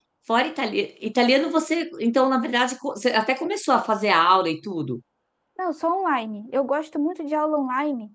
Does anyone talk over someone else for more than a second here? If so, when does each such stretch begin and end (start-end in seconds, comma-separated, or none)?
none